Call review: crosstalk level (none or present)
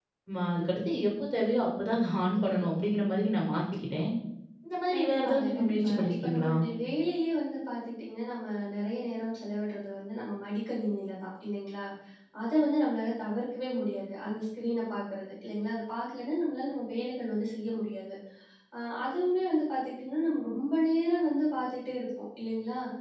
present